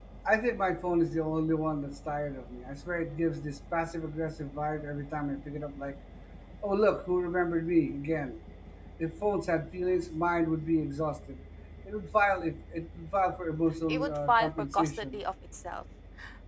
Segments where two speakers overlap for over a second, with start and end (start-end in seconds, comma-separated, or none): 13.9-15.2